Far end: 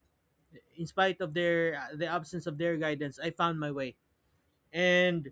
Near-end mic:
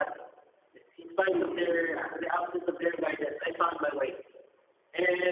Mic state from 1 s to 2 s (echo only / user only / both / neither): both